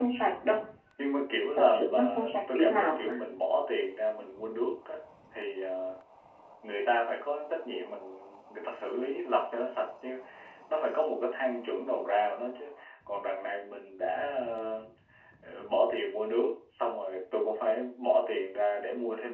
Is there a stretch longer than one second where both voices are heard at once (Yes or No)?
Yes